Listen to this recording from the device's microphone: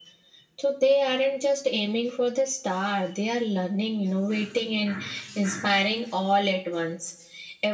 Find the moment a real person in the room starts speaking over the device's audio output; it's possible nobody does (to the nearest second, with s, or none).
none